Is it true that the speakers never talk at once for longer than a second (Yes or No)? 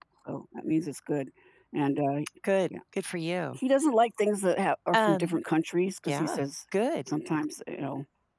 Yes